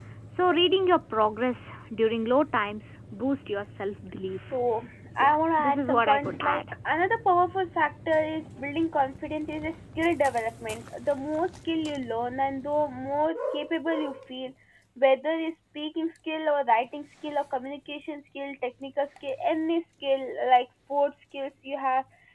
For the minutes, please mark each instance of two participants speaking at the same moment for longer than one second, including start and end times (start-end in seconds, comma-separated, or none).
5.2-6.6